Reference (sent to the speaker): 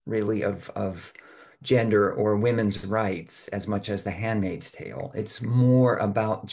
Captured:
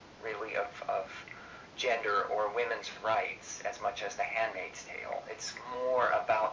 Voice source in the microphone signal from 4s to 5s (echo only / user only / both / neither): echo only